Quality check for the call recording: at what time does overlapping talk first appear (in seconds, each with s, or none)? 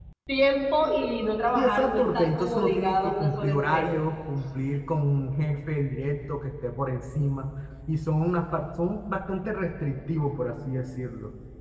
1.6 s